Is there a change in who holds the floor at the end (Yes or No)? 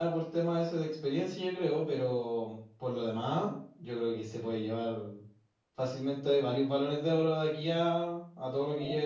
Yes